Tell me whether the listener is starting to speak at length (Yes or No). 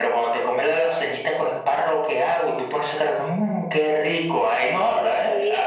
Yes